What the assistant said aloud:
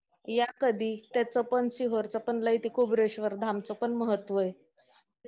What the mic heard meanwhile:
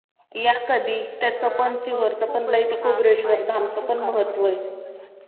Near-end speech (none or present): present